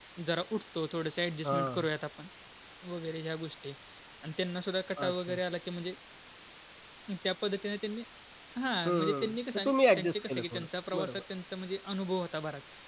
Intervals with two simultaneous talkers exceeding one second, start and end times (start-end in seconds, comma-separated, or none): 8.8-11.2